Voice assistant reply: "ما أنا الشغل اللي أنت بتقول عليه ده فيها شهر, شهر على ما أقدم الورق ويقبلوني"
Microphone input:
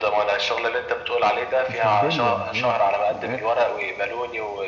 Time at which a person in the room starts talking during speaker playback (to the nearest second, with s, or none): 2 s